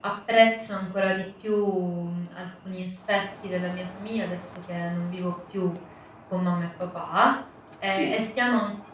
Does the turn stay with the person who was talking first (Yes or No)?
Yes